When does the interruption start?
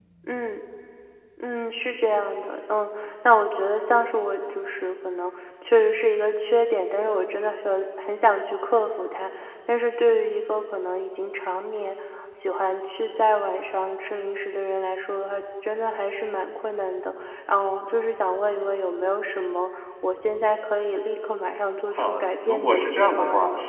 22 s

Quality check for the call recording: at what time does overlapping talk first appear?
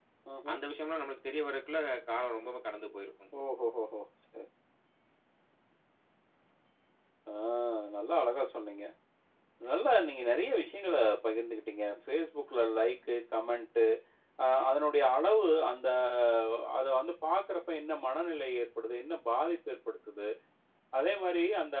none

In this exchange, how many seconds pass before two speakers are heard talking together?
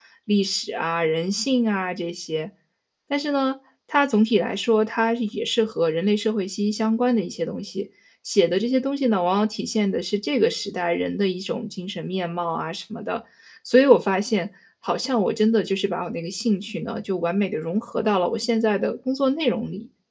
none

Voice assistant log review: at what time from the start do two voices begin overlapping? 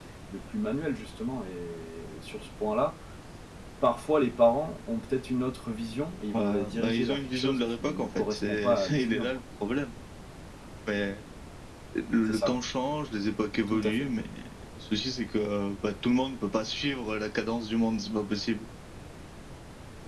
6 s

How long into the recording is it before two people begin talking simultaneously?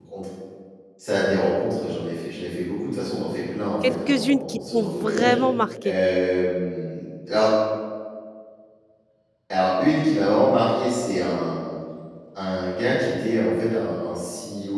4 s

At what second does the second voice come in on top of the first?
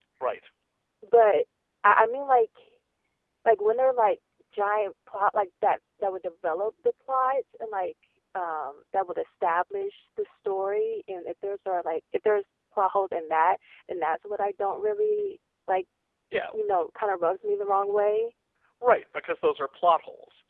none

